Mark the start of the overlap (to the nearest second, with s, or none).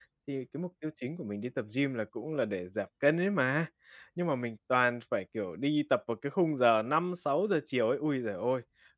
none